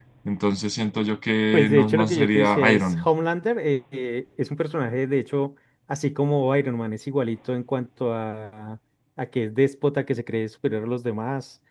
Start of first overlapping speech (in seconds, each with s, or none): 1.5 s